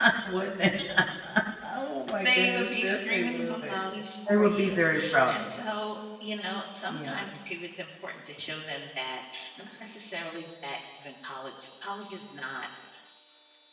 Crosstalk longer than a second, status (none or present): present